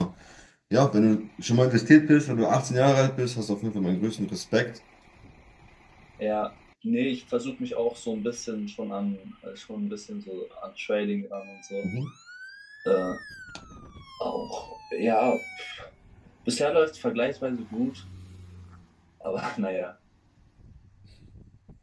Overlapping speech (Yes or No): No